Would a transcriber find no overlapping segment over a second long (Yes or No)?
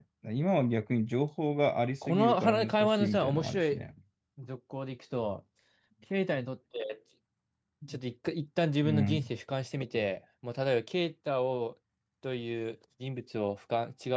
No